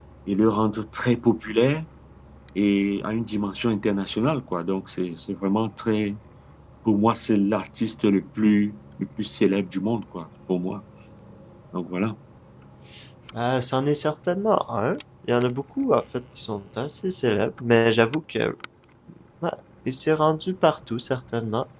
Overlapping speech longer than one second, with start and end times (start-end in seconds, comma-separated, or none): none